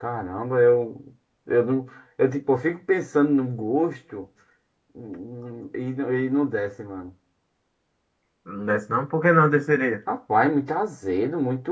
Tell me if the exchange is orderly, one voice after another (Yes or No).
Yes